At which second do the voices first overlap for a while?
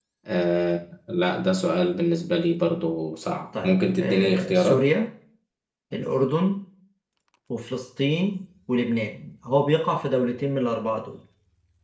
3.5 s

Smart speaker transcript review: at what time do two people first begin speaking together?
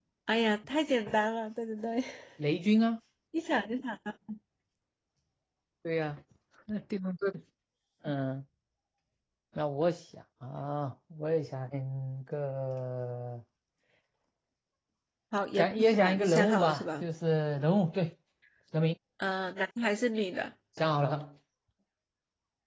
15.6 s

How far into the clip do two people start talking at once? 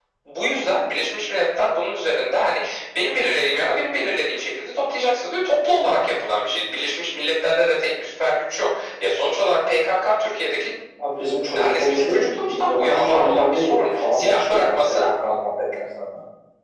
11.5 s

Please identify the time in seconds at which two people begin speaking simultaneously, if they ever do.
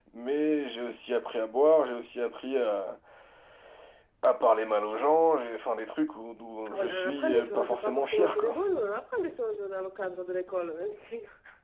6.6 s

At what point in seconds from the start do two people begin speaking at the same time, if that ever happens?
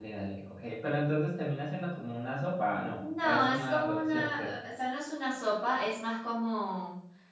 3.0 s

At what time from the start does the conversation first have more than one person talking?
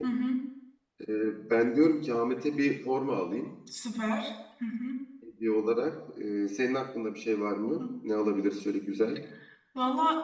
none

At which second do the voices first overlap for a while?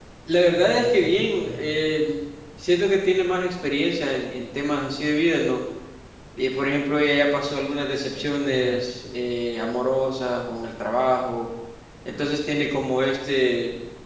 0.5 s

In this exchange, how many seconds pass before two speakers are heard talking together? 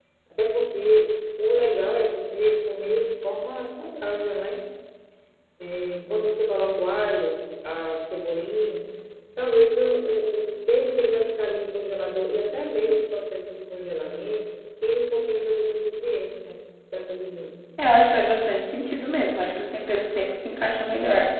none

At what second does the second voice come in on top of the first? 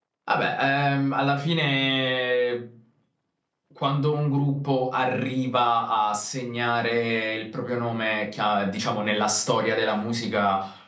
none

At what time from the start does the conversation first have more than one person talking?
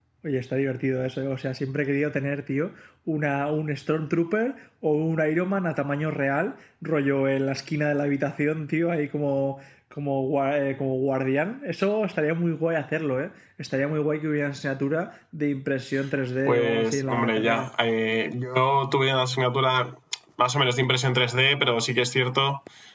16.4 s

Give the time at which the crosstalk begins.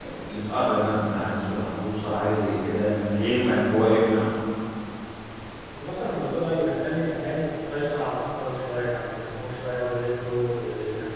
none

